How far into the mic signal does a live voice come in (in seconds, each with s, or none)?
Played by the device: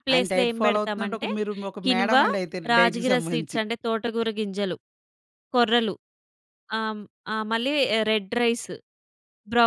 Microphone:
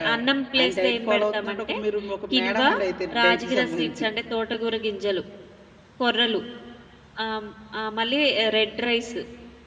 none